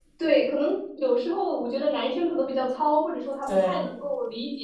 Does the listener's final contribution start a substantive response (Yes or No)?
No